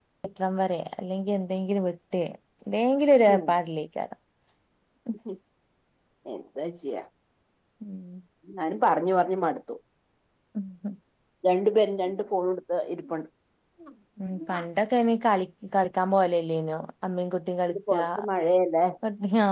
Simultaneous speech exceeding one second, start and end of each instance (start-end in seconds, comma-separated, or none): none